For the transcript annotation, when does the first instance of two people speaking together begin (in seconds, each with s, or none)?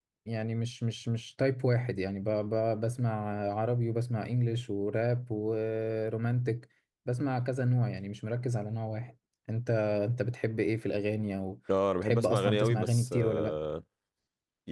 12.0 s